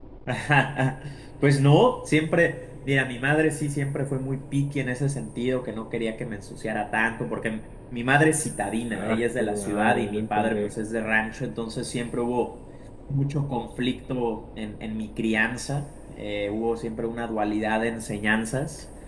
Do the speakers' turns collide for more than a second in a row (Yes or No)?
Yes